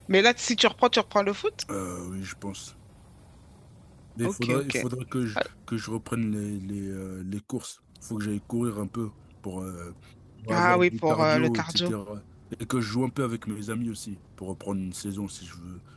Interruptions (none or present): present